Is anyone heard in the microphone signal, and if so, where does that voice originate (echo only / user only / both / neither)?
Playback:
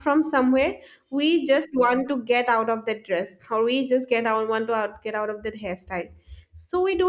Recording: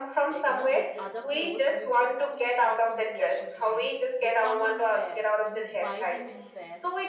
both